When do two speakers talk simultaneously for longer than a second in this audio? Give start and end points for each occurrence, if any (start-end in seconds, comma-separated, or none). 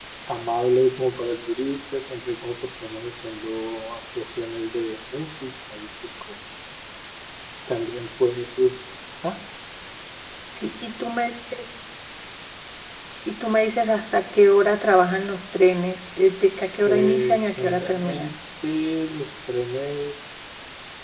16.9-18.3